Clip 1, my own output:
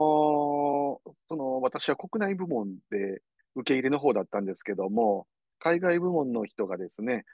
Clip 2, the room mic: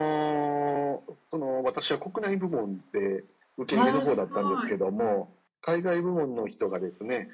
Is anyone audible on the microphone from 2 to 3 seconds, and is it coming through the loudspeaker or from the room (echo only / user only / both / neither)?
echo only